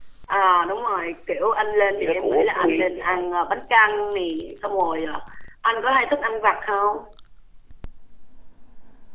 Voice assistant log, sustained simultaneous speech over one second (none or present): present